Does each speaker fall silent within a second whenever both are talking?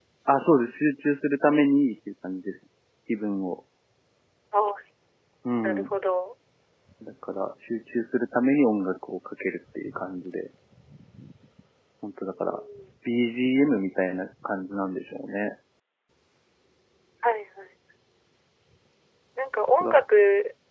Yes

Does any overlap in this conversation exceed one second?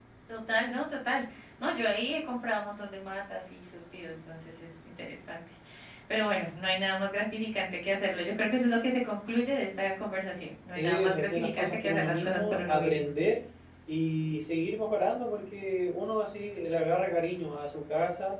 Yes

